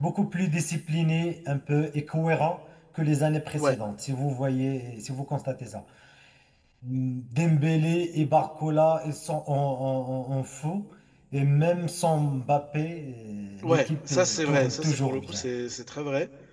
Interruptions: present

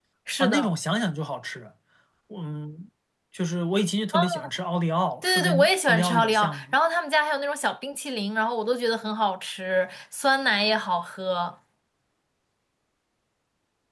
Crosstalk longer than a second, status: present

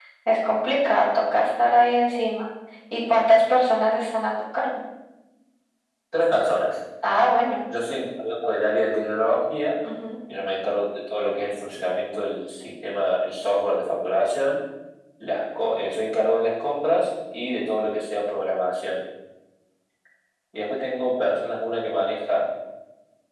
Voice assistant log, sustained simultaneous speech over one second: none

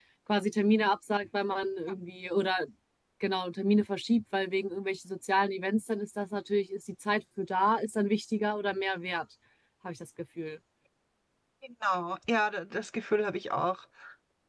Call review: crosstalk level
none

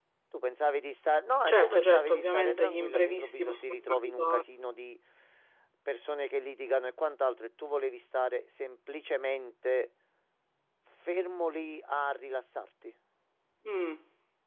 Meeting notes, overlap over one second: present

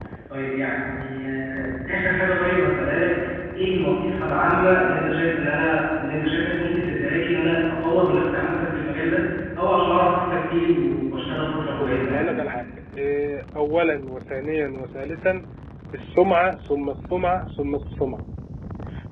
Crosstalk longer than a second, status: none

